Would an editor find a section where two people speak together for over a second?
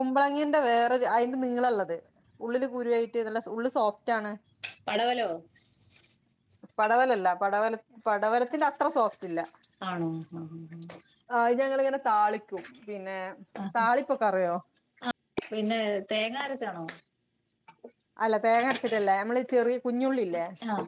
No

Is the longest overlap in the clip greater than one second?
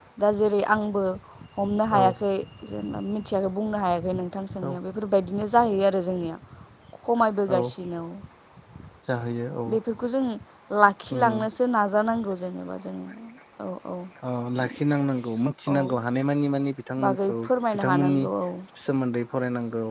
No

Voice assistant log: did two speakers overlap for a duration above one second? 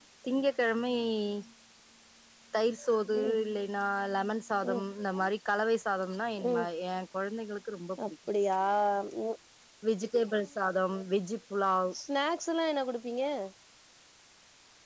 No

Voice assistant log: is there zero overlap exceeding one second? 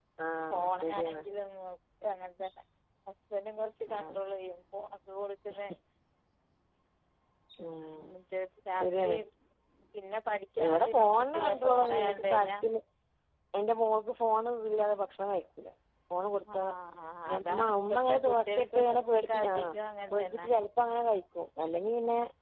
No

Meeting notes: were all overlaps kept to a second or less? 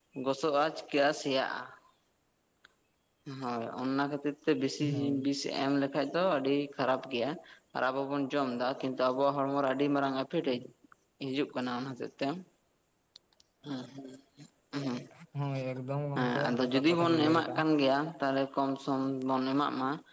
No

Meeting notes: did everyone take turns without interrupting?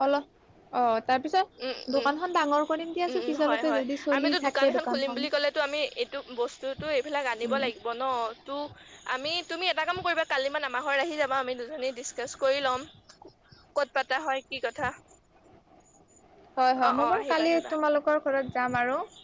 No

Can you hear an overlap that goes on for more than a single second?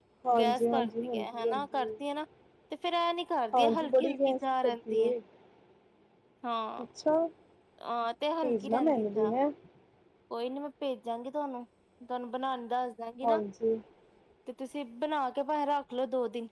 Yes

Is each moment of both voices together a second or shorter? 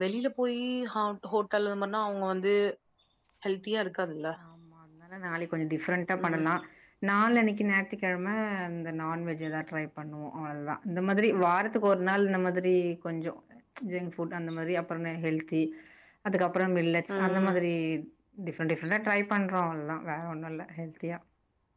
Yes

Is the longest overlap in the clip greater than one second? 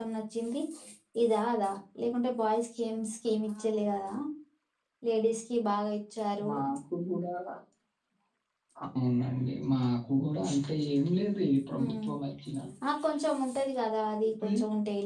No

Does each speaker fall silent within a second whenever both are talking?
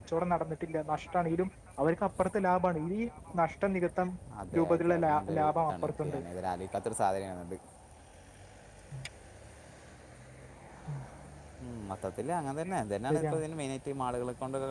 No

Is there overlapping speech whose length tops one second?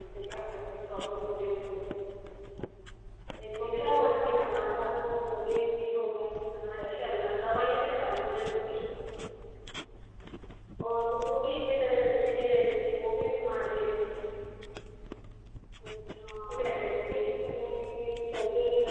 Yes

